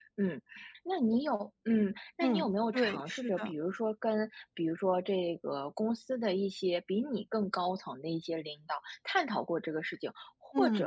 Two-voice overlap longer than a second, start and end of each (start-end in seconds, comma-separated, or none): 2.2-3.5